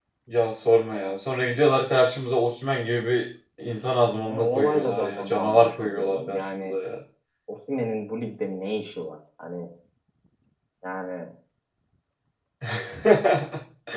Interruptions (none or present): present